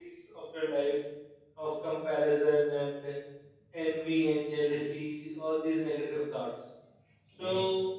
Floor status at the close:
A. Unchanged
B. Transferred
B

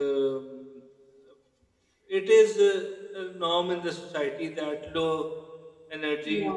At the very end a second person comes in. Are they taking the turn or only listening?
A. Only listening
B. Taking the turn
A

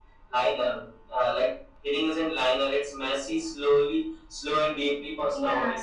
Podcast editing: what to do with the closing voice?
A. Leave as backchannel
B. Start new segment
B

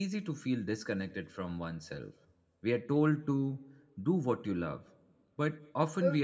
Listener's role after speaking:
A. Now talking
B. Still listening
B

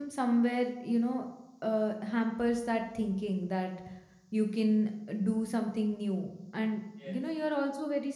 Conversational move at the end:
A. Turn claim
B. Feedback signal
B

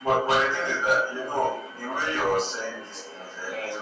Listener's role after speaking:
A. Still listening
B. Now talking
A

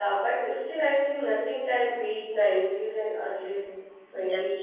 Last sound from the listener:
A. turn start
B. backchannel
A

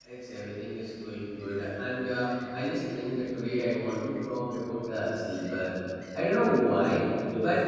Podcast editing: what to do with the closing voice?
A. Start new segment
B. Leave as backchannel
B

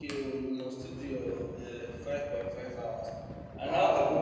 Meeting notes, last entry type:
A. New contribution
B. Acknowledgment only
A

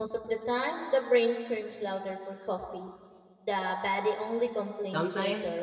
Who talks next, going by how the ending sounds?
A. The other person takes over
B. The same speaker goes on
A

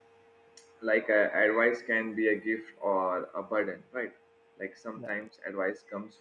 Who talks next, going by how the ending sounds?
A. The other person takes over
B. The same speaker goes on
B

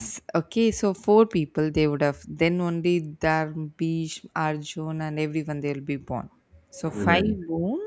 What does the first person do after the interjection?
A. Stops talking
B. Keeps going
B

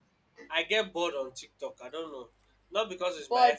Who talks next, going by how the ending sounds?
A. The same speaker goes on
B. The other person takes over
A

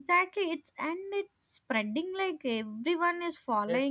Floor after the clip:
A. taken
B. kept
A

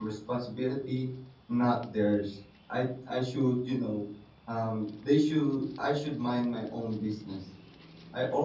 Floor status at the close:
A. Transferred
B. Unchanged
A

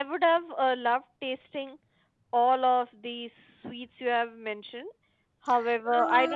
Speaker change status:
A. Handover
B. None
A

